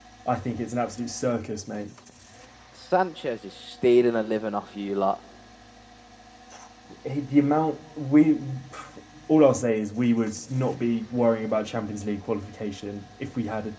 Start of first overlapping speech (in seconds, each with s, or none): none